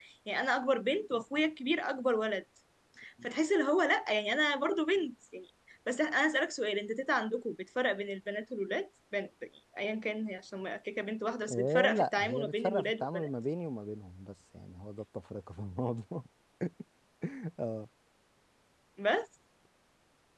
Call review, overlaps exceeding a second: present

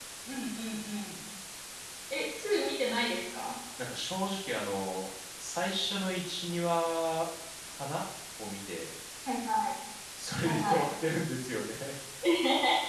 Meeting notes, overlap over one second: none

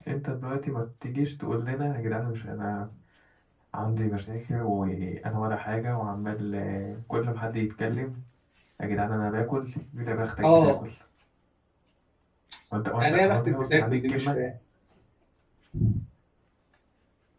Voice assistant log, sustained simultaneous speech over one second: present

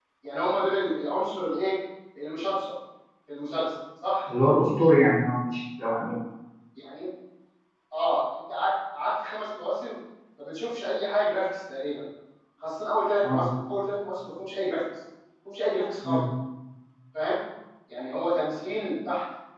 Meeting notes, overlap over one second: none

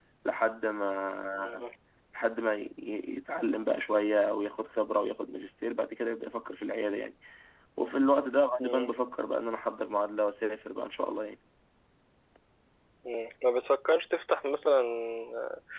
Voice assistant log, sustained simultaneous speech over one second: none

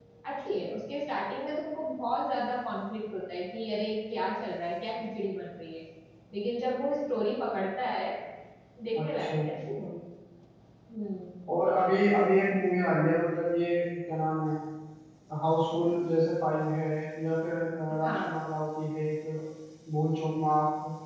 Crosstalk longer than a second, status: none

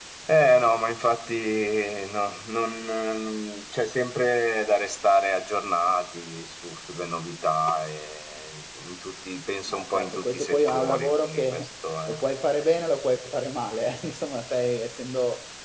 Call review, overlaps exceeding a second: present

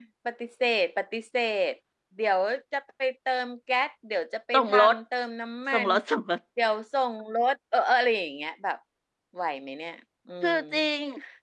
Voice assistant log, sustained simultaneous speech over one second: none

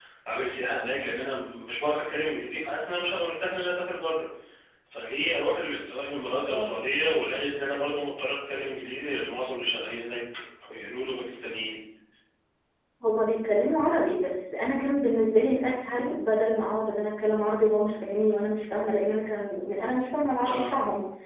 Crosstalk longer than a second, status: none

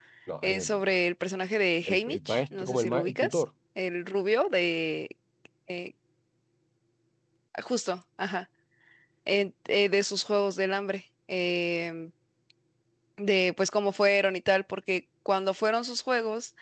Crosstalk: present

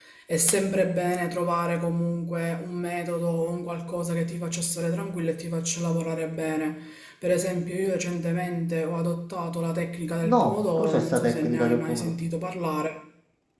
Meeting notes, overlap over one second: present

